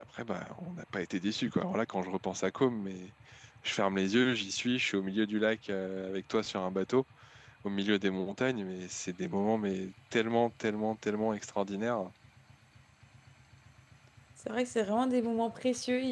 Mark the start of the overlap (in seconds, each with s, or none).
none